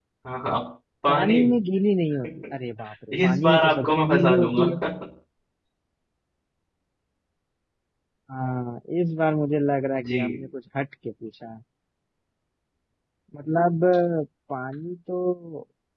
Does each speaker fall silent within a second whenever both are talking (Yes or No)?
No